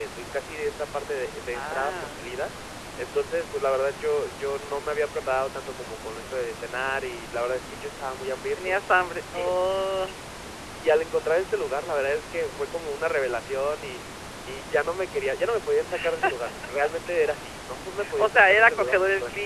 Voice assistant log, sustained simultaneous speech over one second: present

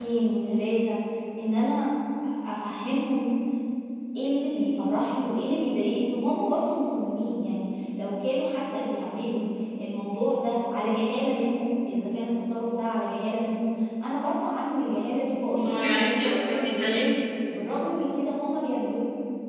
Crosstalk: present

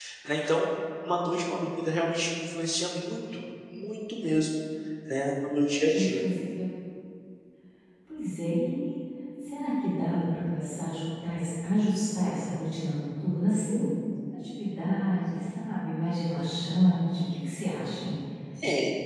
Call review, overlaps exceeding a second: none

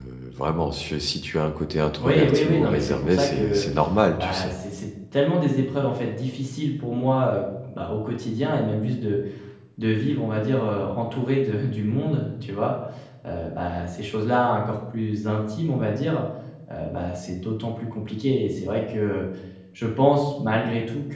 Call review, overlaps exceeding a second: present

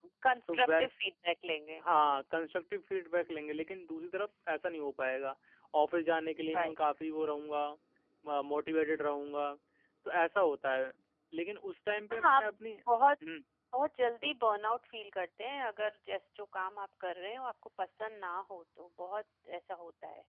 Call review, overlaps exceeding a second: none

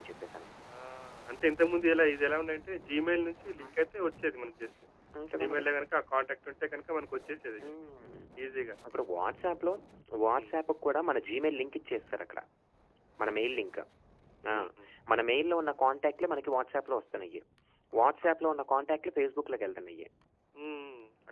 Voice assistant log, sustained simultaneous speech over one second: none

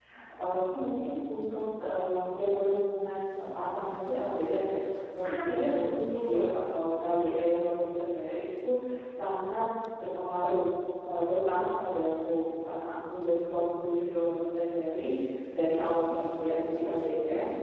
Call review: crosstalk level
present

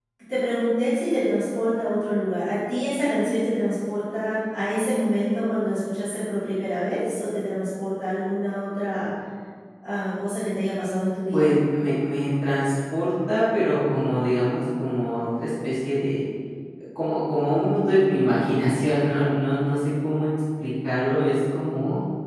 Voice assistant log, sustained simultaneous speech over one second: none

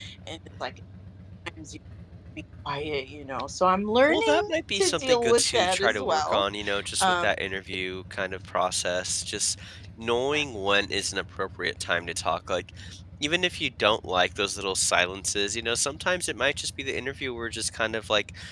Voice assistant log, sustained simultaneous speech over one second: present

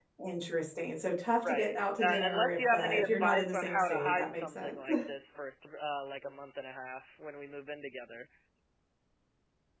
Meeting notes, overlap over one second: present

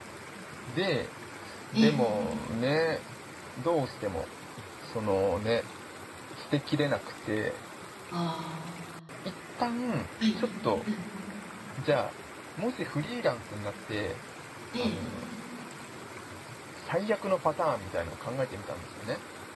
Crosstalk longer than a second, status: none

